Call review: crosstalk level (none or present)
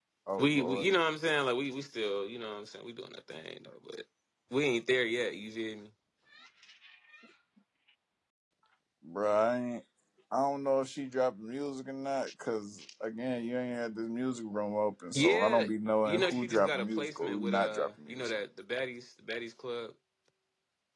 present